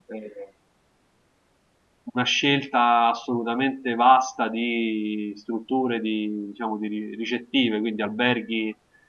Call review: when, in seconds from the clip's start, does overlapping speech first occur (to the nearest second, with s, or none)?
none